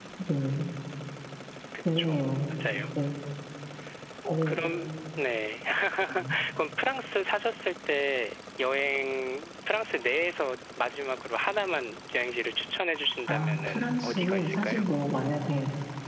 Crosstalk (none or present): present